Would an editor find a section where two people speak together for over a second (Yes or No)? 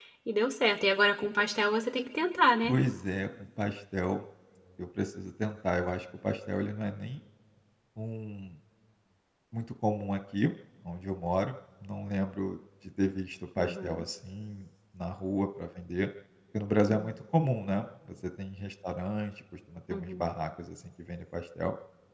No